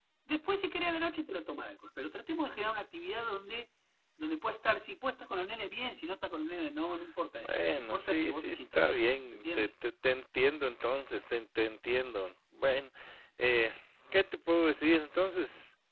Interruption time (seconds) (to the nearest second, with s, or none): 7 s